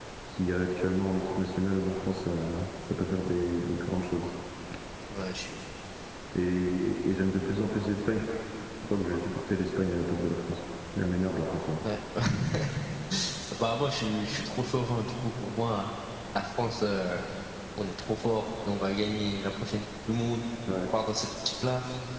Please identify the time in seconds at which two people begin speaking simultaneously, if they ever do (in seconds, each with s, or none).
none